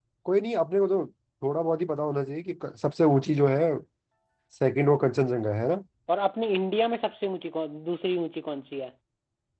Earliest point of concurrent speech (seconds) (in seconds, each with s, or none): none